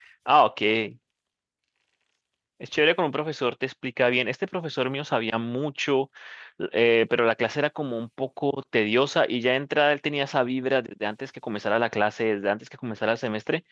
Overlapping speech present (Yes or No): No